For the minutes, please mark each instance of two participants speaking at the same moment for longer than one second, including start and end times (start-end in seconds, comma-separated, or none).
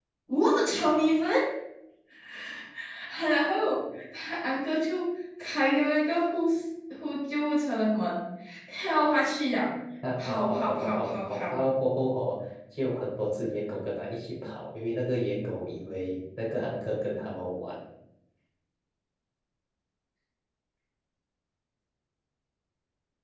10.2-11.6